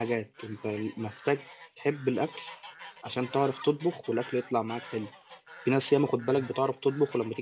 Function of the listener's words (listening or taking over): listening